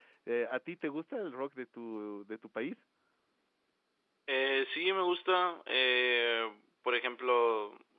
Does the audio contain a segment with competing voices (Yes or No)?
No